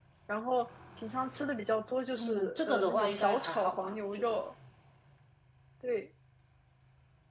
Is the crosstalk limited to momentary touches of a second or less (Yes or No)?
No